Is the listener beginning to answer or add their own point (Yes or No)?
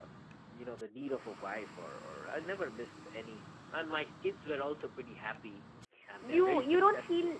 Yes